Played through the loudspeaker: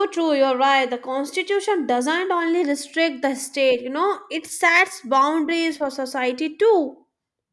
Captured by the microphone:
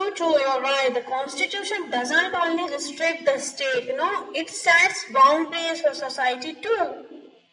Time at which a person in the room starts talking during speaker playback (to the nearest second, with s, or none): none